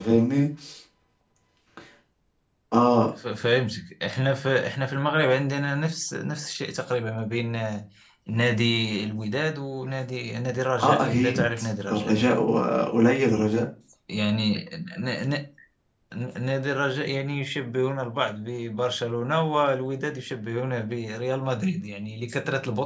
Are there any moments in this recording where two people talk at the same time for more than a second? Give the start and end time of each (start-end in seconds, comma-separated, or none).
10.8-12.1